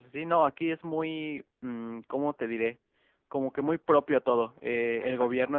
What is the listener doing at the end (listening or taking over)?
listening